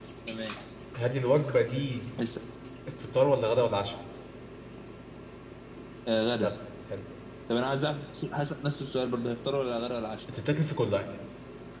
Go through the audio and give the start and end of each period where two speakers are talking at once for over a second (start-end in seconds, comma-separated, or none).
none